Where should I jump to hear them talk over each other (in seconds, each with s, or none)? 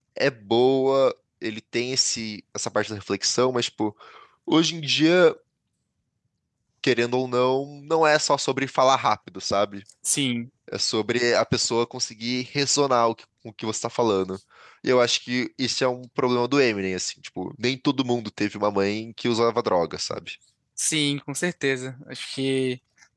none